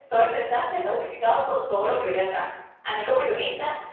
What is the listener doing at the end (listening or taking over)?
listening